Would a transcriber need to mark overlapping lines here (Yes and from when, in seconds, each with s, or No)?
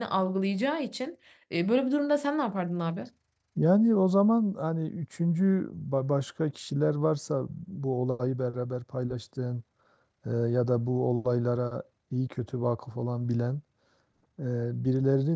No